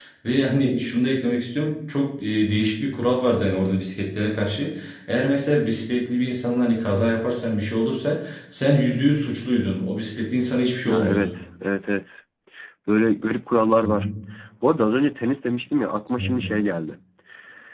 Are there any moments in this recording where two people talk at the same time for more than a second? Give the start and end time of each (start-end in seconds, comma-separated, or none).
none